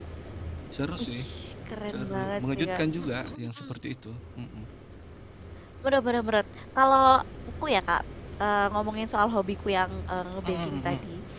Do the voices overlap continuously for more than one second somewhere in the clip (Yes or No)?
Yes